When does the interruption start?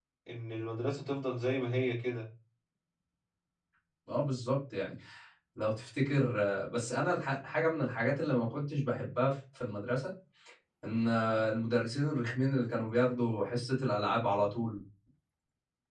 none

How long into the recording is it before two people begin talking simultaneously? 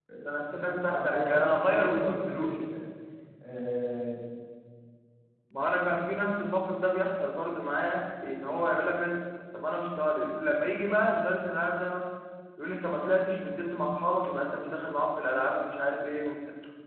0.5 s

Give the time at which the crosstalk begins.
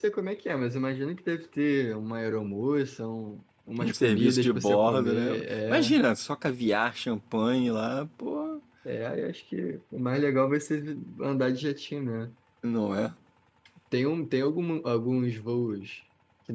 3.8 s

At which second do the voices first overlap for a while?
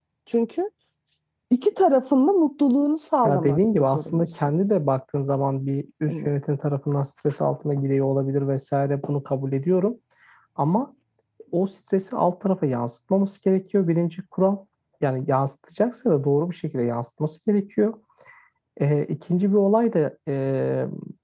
3.2 s

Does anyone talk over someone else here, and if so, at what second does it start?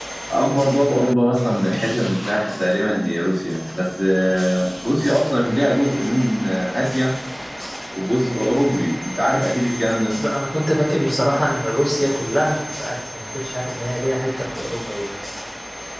none

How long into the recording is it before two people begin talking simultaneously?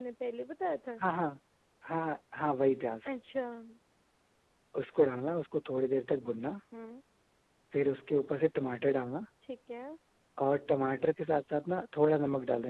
none

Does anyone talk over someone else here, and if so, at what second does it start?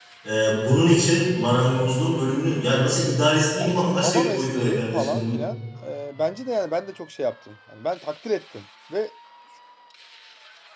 3.6 s

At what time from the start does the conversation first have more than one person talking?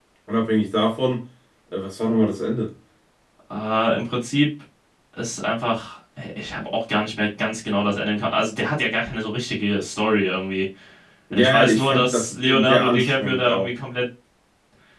11.3 s

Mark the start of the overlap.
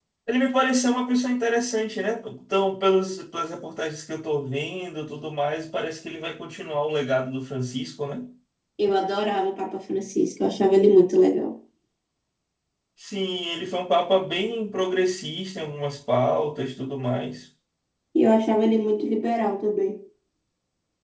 none

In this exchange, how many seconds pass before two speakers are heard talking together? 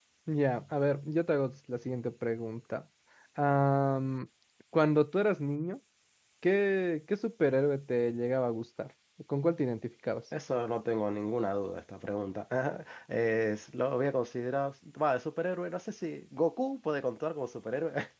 none

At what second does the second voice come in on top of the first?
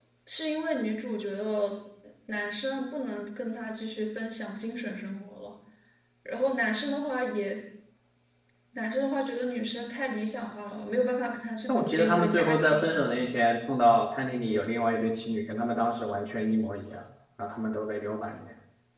11.7 s

